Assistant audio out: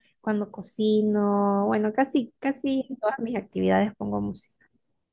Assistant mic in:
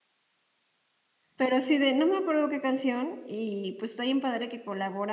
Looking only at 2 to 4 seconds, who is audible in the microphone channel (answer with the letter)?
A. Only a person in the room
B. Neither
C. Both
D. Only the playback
A